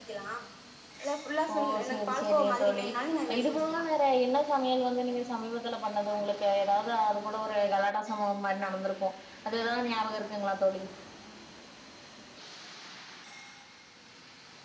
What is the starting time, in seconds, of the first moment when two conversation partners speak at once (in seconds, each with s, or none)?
1.5 s